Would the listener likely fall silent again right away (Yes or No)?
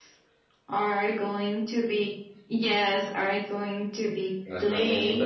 Yes